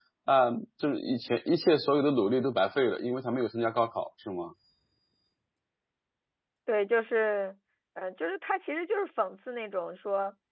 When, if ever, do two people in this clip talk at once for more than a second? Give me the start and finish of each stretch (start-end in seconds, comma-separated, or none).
none